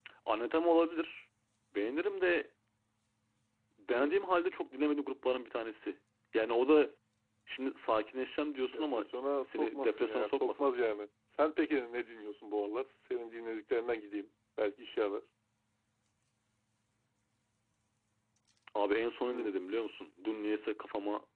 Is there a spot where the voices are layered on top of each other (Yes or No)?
Yes